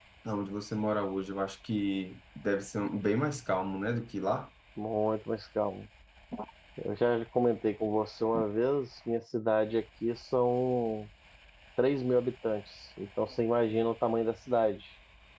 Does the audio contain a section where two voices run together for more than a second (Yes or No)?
No